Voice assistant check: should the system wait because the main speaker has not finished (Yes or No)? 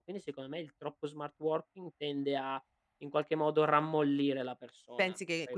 No